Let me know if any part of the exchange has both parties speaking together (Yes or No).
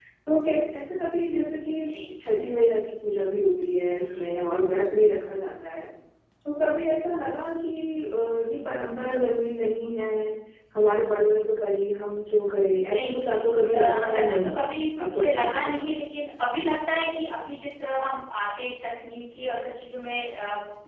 Yes